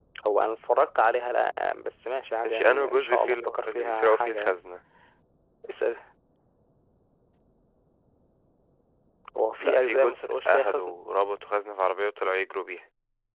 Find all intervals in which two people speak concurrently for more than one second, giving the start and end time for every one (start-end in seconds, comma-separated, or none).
2.5-4.6, 9.6-11.0